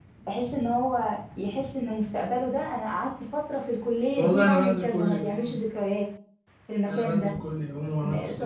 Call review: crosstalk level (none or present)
present